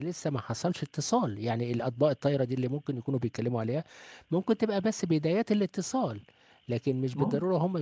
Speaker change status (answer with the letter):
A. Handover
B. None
B